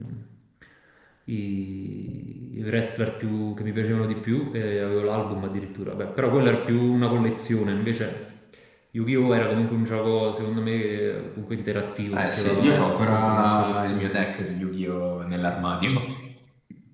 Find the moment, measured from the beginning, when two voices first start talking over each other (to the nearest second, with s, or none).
12 s